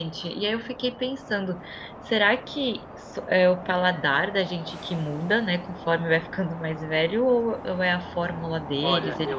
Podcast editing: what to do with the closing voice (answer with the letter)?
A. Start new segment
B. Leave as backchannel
A